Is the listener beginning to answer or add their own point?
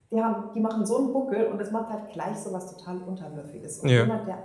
No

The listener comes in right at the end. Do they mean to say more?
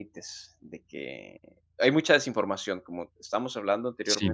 No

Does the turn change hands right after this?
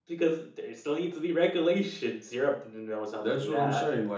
Yes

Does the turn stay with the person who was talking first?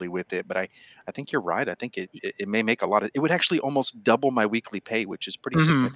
No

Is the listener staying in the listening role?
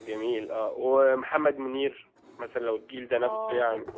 No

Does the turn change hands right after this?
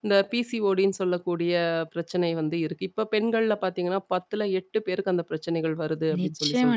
Yes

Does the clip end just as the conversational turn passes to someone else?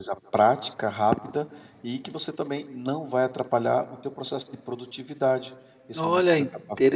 Yes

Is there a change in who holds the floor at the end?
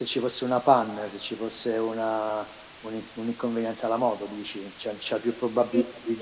Yes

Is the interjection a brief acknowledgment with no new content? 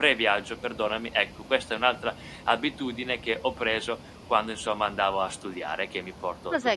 No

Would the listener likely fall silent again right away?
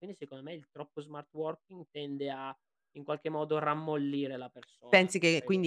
No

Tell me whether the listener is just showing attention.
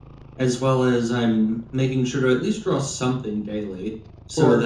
Yes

